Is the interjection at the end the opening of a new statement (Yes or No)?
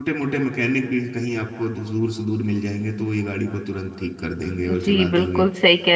Yes